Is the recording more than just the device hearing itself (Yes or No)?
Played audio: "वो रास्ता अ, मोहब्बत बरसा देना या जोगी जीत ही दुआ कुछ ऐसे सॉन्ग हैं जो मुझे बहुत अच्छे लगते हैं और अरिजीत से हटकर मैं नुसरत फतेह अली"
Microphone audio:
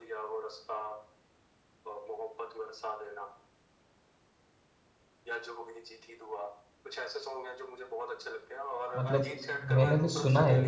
Yes